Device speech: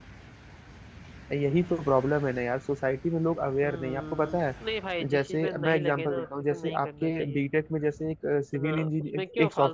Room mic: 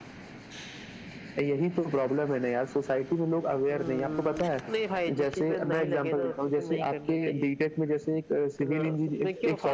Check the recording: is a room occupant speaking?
No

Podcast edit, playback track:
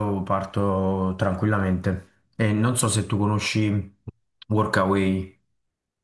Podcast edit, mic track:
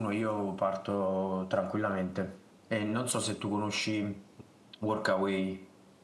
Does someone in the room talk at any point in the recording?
No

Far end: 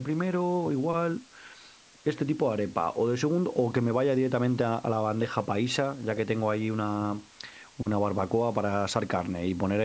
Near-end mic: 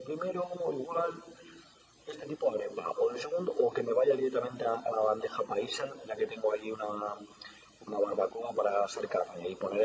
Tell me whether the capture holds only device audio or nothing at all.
Yes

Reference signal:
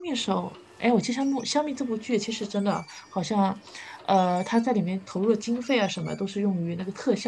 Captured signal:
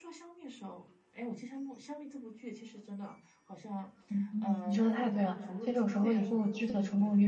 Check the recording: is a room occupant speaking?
Yes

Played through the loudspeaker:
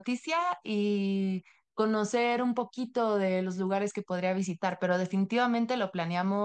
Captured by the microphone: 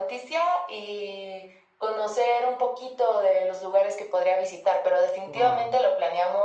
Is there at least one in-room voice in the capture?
Yes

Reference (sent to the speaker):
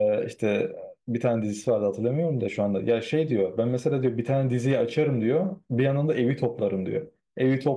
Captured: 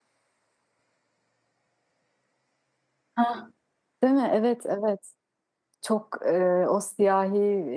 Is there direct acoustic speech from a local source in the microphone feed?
Yes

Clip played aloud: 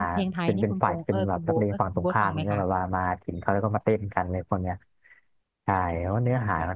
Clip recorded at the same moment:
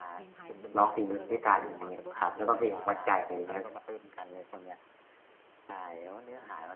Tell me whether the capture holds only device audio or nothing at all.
No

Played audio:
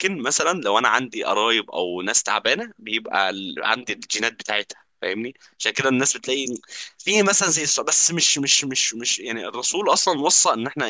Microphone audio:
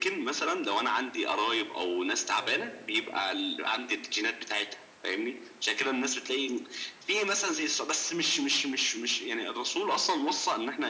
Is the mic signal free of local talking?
No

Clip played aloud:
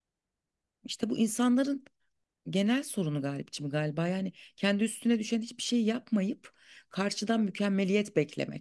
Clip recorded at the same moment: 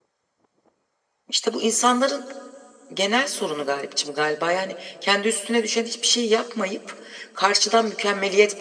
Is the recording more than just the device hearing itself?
No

